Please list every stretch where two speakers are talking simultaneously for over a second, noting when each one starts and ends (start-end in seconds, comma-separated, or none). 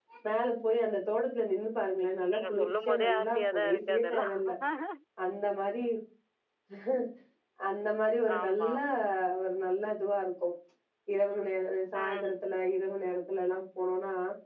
2.3-4.3